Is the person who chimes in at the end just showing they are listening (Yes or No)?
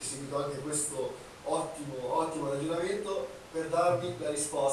Yes